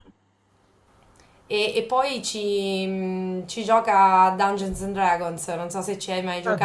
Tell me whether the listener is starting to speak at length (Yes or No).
Yes